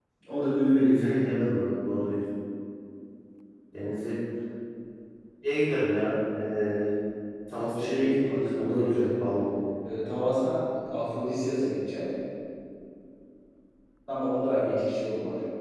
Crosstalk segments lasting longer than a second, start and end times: 7.8-9.1

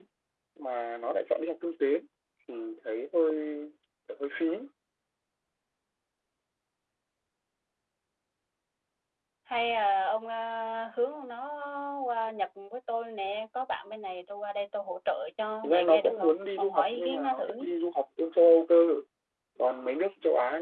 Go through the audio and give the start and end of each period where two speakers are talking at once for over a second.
15.6-17.7

